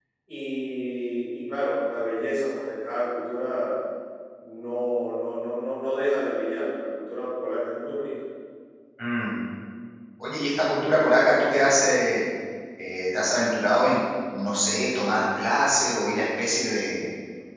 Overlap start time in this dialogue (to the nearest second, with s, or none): none